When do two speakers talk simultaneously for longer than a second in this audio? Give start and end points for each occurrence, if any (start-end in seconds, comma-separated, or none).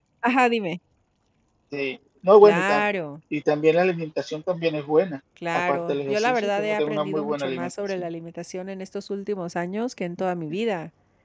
5.5-8.0